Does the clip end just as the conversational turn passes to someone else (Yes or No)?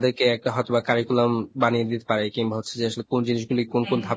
No